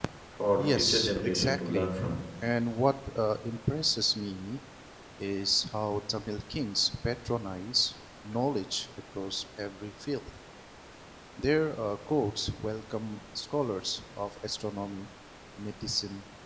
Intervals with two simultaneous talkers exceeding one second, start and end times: 0.6-2.0

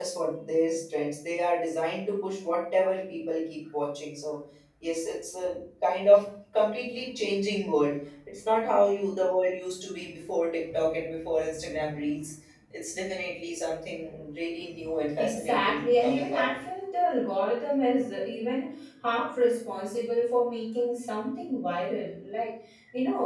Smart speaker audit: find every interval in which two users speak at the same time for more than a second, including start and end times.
15.2-16.4

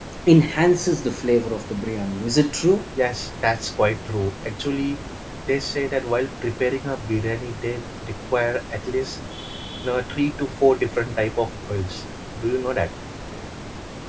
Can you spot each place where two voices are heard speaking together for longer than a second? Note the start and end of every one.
none

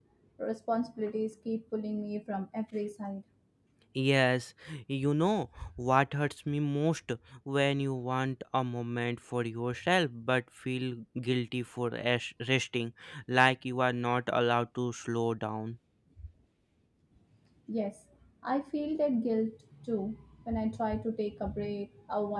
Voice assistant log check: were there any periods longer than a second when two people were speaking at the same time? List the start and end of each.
none

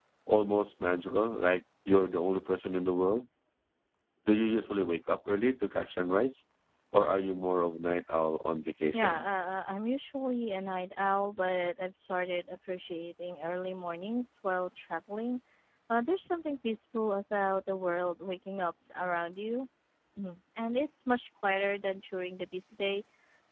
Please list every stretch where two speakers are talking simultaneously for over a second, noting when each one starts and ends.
none

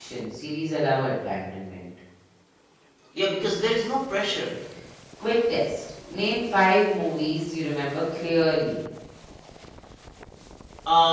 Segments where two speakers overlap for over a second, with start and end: none

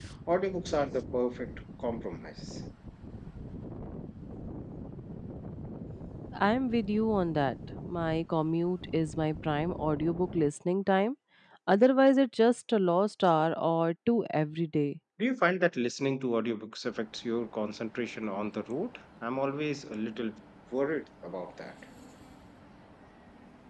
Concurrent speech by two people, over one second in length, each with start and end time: none

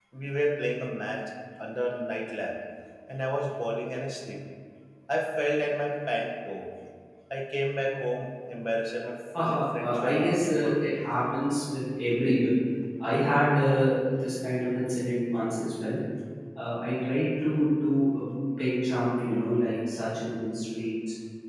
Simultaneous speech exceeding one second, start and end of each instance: 9.4-11.0

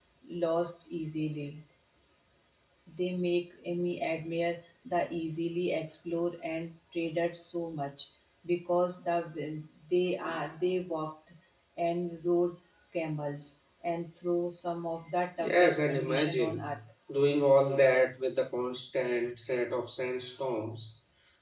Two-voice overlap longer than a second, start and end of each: 15.4-16.7

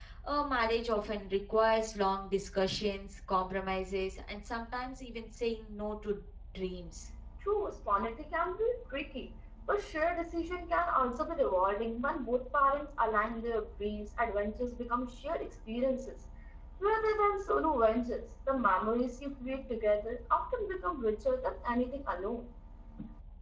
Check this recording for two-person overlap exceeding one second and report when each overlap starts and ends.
none

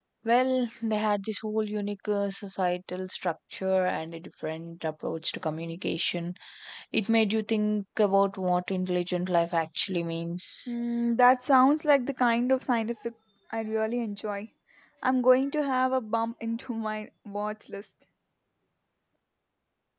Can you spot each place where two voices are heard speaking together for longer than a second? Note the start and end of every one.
none

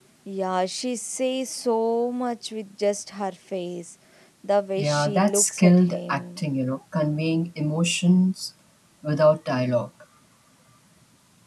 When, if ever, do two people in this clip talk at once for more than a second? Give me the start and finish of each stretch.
4.8-6.5

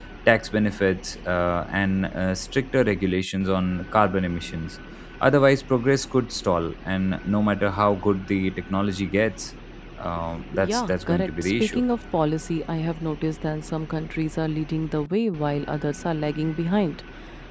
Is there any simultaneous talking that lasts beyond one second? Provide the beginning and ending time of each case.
10.6-11.8

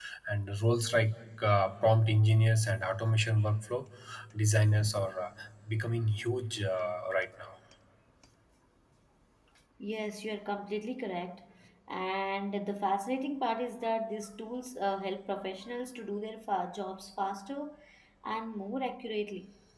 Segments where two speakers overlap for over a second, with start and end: none

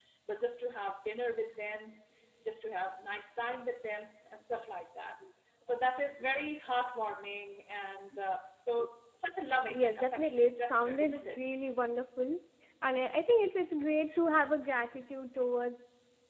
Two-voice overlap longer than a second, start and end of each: 9.7-11.4

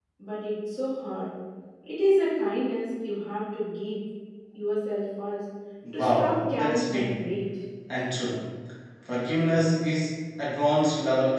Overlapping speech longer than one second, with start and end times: 5.9-7.2

